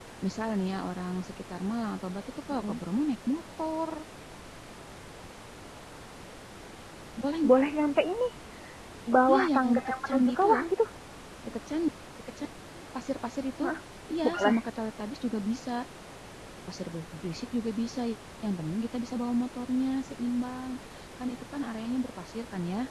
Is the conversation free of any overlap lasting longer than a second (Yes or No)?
No